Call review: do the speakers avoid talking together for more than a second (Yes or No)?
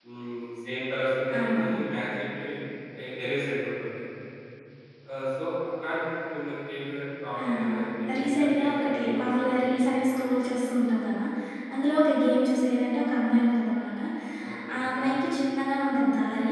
No